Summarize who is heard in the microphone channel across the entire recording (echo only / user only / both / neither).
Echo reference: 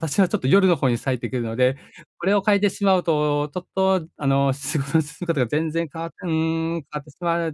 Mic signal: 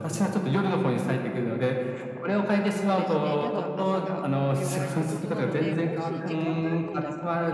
both